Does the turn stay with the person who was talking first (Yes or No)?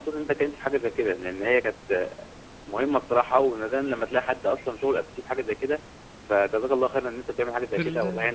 No